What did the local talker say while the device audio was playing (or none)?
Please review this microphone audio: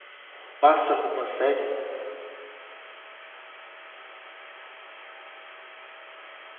Pássaro de uma série?